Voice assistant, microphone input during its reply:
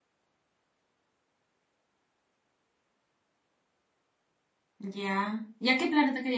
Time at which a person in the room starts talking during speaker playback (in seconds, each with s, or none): 4.8 s